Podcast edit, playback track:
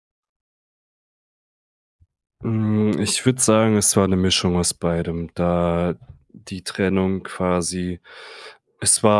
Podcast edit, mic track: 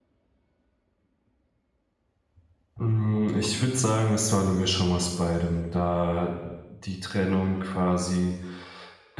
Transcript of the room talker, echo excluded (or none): none